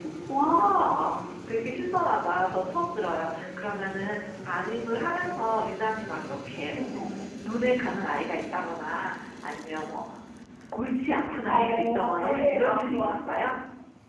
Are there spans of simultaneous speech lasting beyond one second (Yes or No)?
Yes